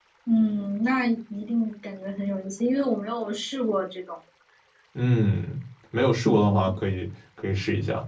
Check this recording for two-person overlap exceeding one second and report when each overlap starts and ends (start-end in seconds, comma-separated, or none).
none